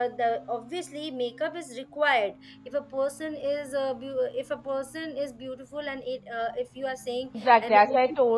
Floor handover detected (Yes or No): Yes